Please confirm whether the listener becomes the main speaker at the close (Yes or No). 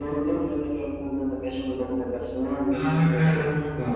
Yes